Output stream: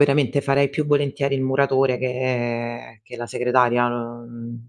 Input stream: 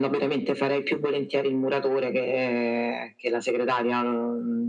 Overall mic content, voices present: echo only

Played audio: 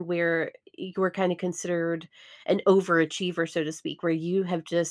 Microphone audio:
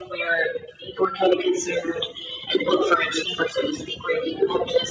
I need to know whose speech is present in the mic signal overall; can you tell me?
echo only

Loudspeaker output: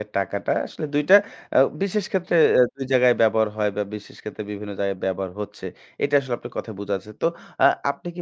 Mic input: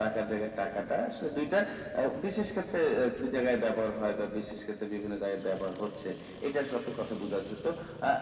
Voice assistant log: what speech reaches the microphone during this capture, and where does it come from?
echo only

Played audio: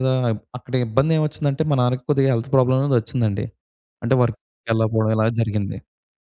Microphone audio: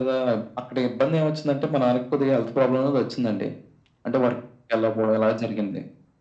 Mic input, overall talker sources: echo only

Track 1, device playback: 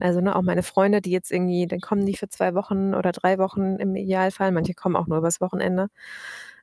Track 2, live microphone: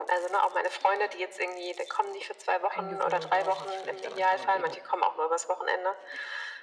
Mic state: both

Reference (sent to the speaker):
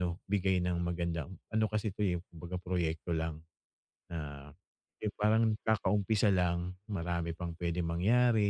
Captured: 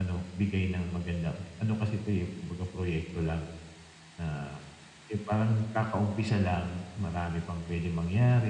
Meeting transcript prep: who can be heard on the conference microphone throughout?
echo only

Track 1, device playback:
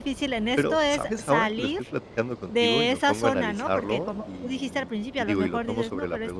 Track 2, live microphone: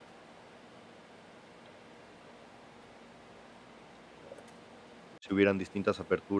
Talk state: user only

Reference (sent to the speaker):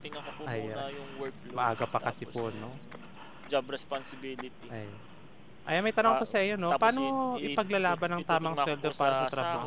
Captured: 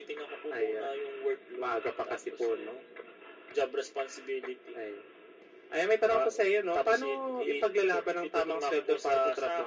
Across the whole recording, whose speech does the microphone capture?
echo only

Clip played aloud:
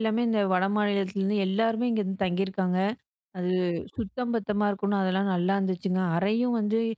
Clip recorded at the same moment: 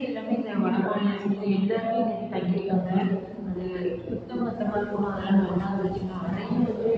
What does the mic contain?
echo only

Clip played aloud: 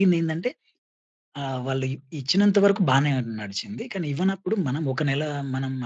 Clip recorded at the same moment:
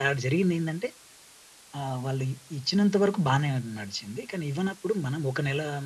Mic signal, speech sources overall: echo only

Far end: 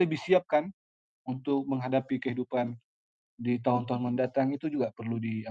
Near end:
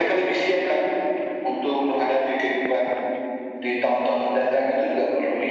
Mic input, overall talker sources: echo only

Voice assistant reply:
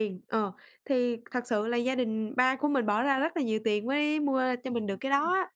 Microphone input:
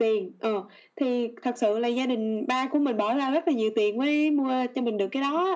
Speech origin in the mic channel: echo only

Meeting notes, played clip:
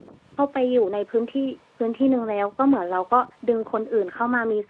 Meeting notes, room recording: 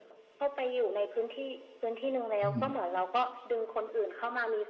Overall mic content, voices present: both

